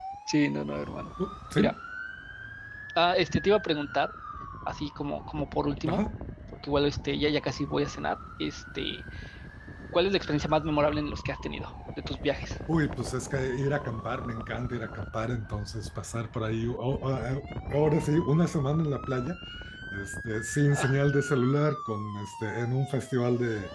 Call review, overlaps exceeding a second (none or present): none